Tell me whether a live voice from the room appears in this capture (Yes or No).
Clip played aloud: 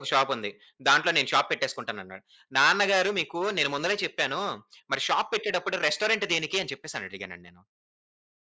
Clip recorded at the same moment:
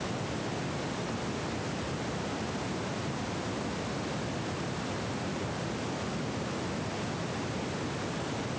No